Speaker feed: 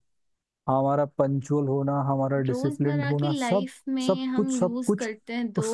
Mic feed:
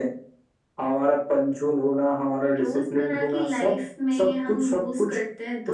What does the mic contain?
echo only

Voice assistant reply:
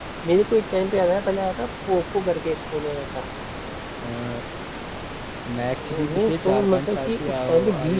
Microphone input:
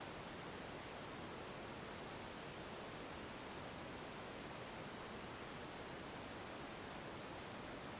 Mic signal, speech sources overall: neither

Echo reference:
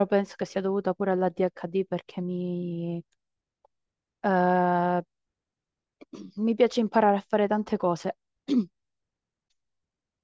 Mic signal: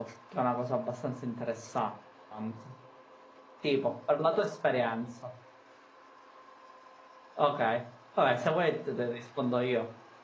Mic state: user only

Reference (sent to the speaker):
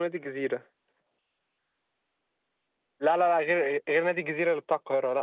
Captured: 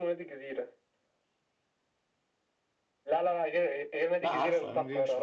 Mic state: both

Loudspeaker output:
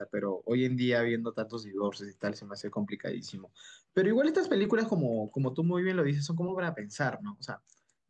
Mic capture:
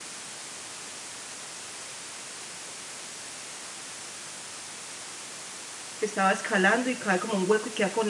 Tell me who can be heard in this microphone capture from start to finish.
user only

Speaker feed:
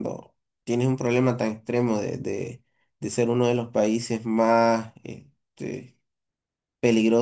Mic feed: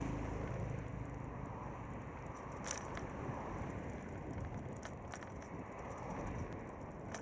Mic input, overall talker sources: neither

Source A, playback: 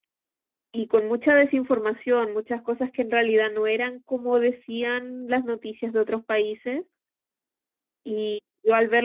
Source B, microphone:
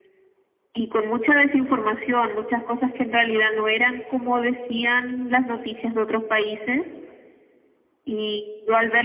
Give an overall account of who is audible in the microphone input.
echo only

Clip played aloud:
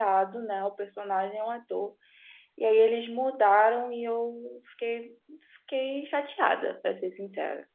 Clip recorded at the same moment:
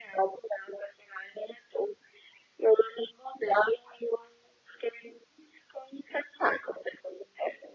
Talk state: echo only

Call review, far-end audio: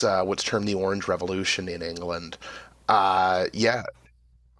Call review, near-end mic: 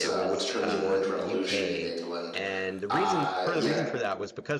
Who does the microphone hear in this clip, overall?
both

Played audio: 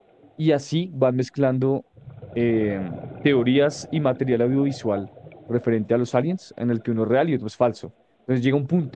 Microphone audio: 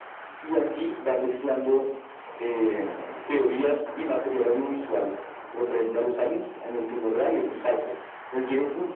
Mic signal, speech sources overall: echo only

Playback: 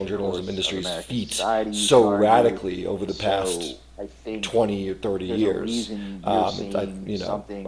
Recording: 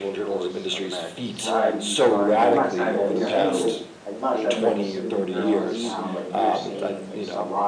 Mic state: both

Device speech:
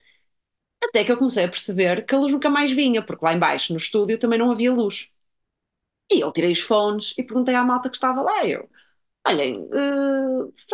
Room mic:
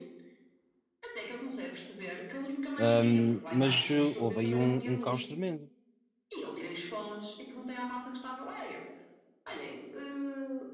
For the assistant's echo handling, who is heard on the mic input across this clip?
both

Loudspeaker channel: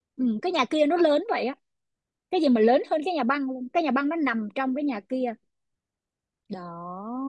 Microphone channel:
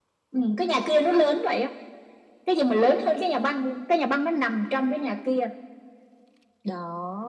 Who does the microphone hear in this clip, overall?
echo only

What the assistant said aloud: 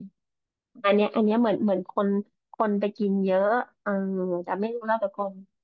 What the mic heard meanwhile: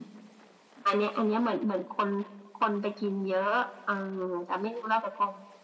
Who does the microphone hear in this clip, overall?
echo only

